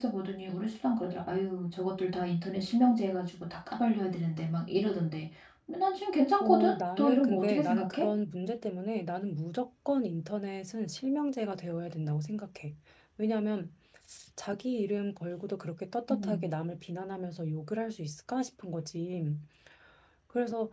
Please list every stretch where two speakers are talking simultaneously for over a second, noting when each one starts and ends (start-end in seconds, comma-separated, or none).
6.4-8.1